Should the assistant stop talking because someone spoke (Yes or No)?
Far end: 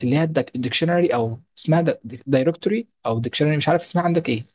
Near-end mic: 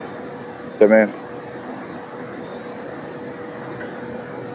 Yes